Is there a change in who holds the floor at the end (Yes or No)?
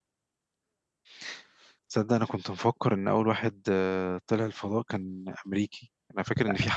No